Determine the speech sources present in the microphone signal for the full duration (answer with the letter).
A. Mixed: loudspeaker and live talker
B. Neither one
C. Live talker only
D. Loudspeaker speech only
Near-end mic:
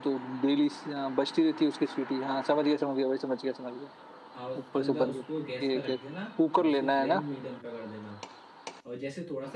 A